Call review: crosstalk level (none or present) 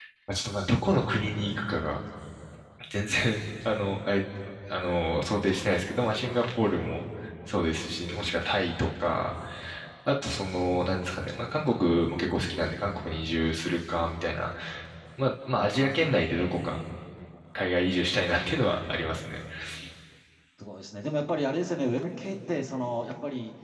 none